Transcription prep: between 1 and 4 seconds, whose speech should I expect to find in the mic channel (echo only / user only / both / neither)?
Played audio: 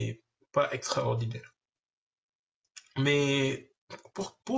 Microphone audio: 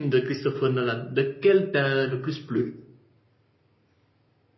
user only